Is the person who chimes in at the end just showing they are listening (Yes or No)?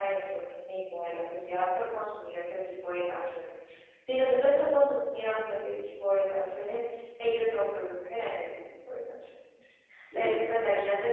Yes